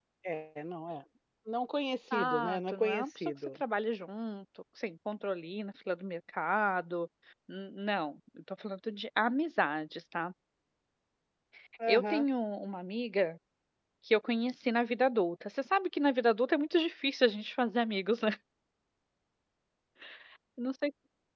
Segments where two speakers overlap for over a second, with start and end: 2.1-3.6

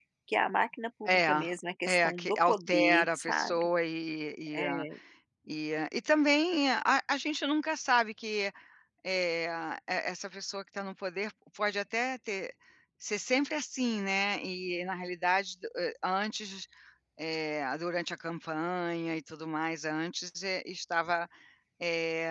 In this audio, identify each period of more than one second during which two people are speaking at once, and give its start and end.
1.8-3.7

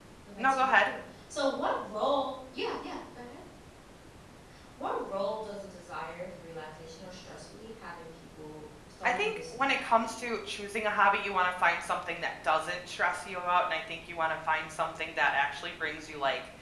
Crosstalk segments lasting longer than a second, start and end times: 9.0-10.3

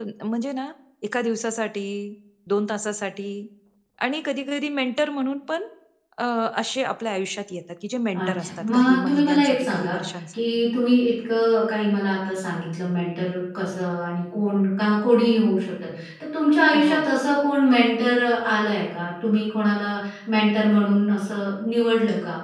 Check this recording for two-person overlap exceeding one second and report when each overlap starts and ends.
8.2-9.9

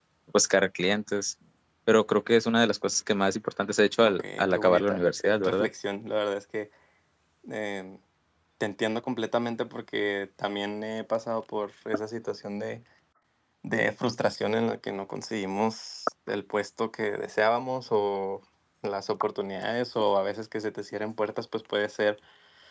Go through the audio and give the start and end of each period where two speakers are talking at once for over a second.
4.0-5.7

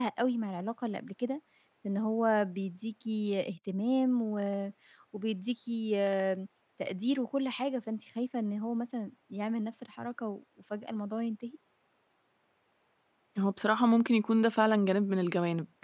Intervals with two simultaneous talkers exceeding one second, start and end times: none

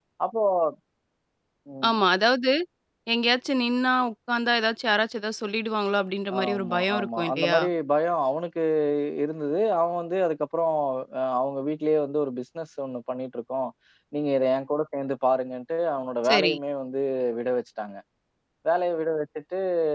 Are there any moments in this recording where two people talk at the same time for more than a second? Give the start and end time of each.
6.4-7.6

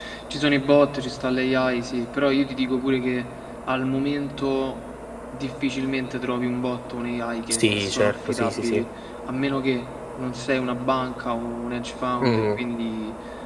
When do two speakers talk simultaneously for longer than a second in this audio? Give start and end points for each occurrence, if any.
7.5-8.8

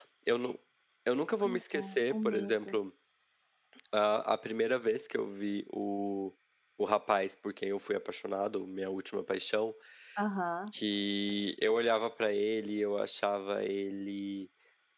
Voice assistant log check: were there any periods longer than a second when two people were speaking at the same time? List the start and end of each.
1.4-2.7

